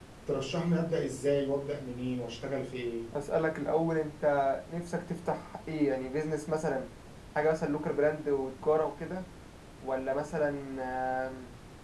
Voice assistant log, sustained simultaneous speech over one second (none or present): none